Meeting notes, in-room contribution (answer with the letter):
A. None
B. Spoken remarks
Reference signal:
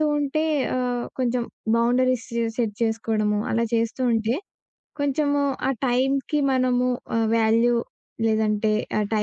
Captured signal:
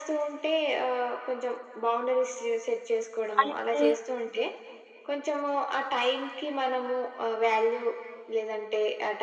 B